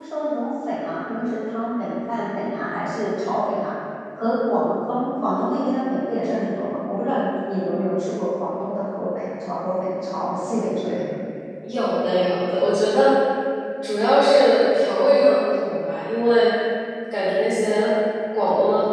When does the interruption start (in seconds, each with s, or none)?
none